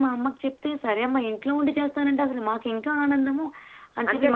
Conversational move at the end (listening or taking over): listening